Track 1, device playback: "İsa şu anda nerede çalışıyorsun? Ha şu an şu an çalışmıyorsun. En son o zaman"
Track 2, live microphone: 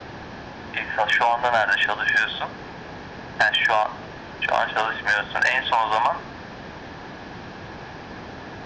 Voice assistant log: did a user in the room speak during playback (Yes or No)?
No